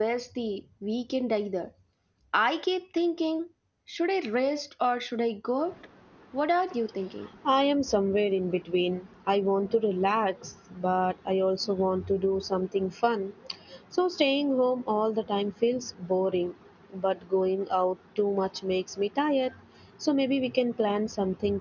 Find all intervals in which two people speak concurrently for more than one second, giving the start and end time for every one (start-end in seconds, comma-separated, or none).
none